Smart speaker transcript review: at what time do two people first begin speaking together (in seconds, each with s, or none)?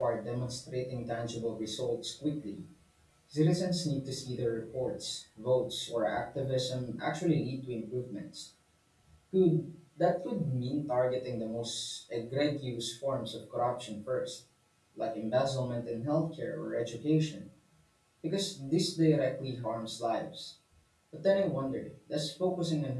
none